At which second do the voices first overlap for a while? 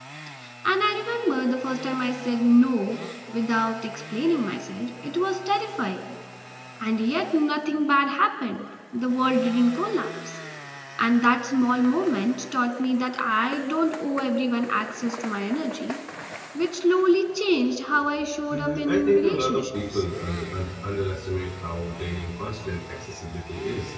18.5 s

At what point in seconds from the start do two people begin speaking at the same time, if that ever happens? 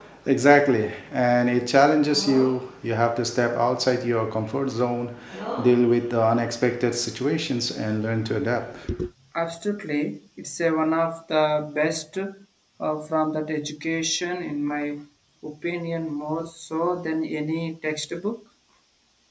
none

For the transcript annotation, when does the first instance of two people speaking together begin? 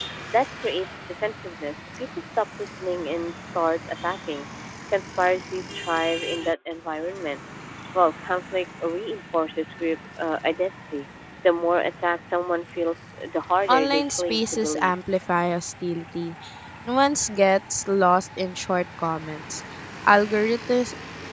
13.7 s

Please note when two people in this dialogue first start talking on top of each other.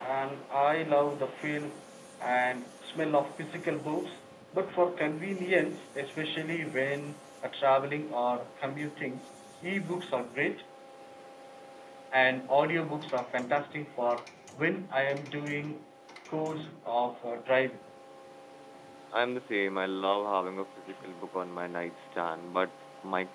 none

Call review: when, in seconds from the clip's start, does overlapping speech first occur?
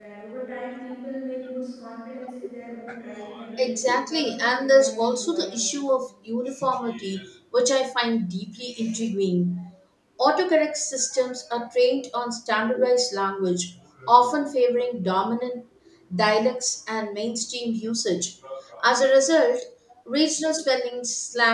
3.6 s

